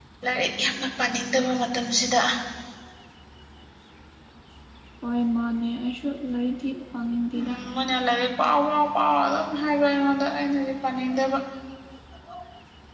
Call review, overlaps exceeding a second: none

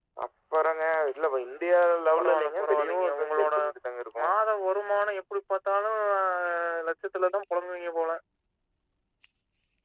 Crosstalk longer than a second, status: present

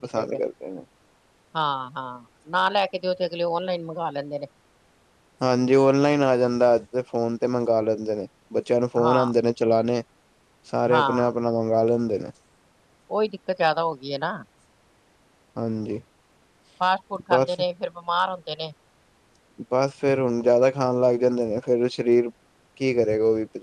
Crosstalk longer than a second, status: none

